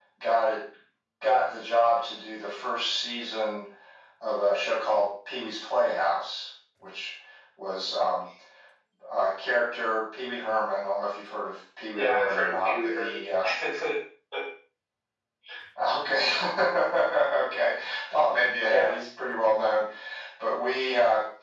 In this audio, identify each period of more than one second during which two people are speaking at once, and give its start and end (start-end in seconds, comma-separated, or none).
12.0-13.2